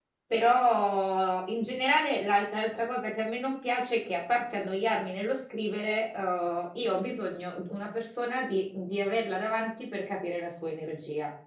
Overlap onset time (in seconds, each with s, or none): none